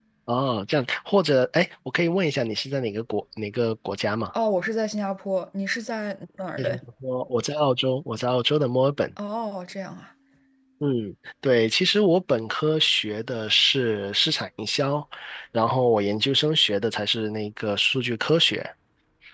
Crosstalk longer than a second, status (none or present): none